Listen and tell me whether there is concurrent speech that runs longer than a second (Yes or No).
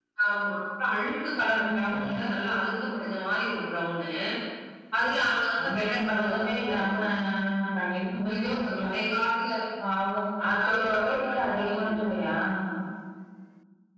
Yes